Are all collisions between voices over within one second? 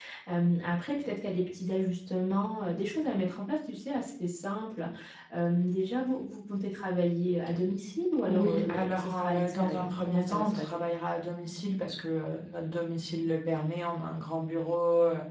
No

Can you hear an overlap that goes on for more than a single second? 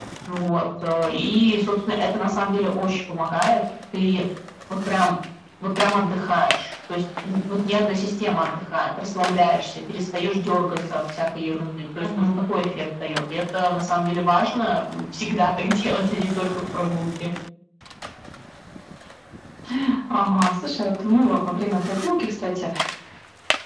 No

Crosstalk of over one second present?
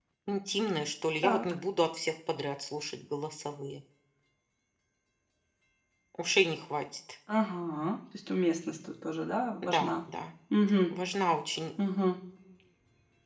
No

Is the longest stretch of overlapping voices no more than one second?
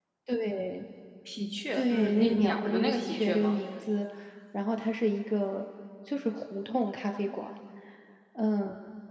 No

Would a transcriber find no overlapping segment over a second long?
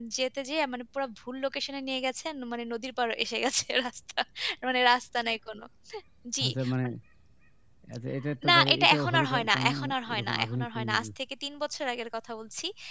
No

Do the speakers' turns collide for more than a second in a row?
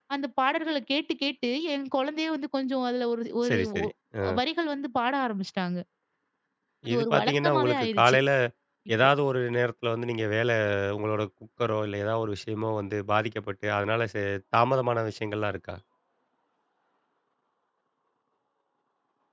Yes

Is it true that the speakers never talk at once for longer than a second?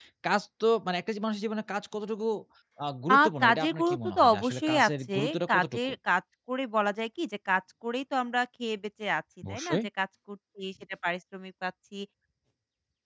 No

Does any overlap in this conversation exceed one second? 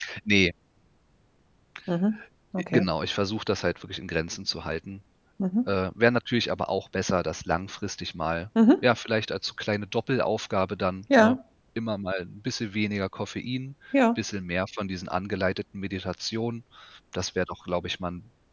No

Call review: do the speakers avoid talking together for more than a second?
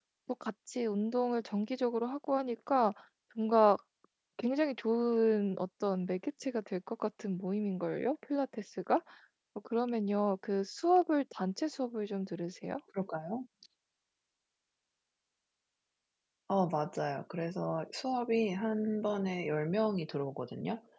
Yes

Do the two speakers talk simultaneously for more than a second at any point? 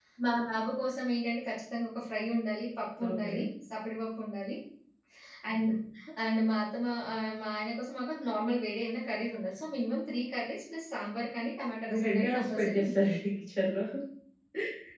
Yes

